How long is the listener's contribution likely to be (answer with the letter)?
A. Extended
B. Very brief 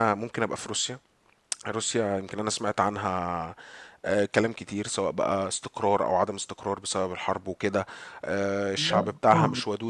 B